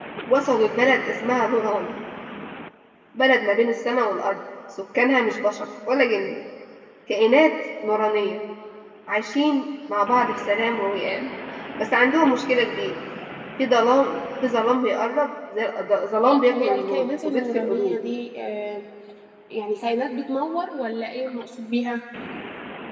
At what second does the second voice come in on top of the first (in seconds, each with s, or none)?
16.2 s